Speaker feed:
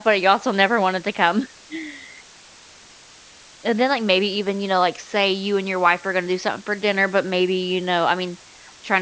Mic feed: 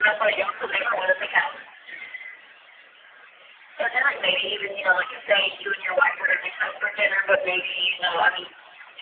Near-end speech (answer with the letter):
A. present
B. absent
B